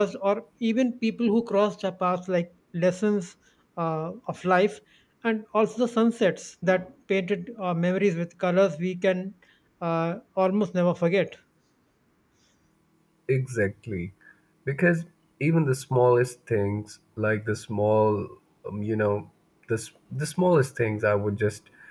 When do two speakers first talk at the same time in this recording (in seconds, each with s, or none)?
none